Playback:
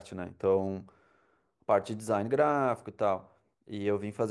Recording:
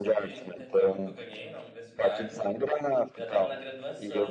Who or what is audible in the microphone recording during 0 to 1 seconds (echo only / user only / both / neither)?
both